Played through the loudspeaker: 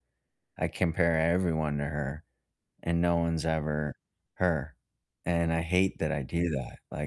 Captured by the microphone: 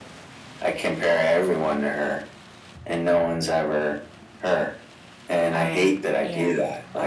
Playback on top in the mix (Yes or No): Yes